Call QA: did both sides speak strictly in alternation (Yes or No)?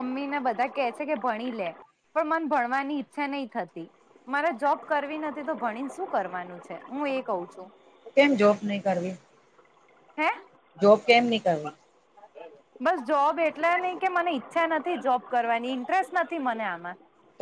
Yes